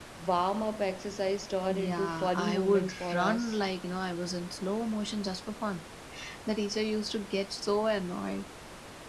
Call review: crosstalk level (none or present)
present